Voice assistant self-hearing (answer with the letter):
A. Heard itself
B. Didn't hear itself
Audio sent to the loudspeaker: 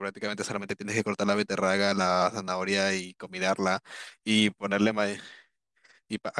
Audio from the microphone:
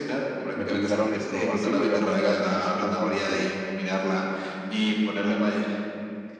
A